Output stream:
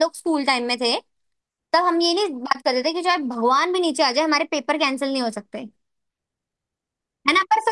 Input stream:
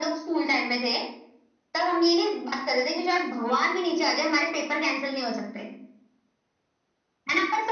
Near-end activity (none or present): none